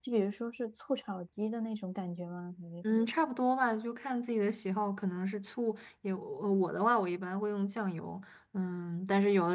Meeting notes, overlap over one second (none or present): none